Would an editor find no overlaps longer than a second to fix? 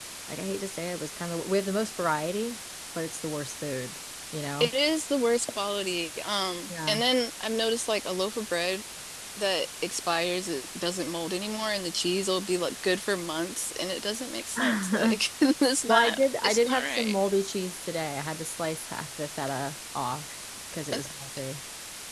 No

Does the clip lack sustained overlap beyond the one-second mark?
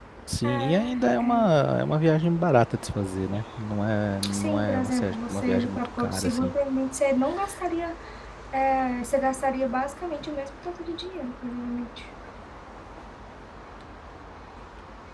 No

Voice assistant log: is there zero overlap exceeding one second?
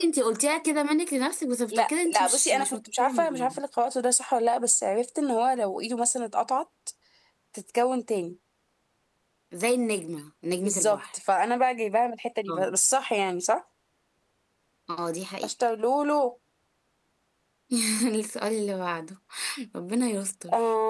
No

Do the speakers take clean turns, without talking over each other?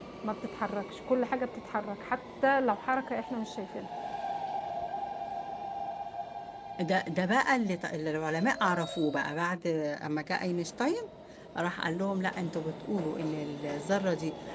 Yes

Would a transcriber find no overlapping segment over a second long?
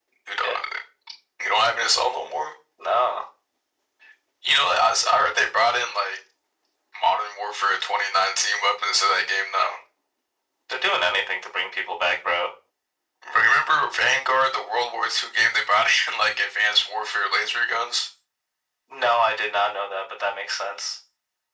Yes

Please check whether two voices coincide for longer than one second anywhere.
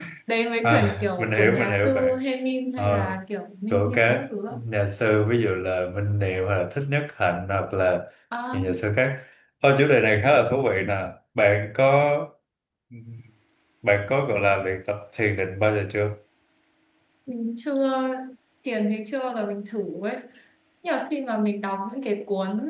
Yes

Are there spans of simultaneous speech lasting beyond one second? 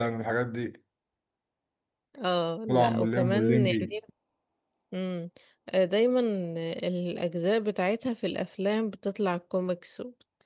Yes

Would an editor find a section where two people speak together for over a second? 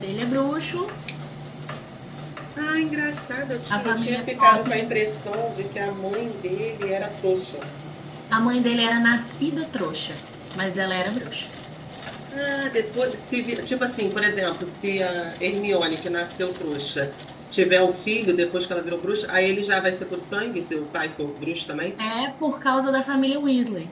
Yes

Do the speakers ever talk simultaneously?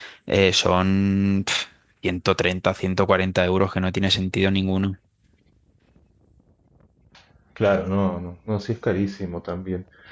No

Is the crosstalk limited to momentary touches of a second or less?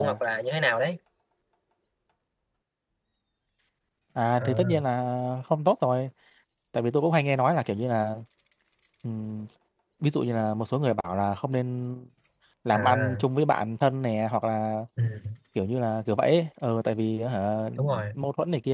Yes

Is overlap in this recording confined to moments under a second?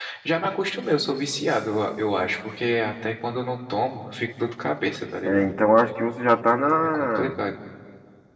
Yes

